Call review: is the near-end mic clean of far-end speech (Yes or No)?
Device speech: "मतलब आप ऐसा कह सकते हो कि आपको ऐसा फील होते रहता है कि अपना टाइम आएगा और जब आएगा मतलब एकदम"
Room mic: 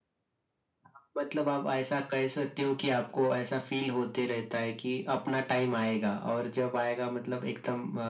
No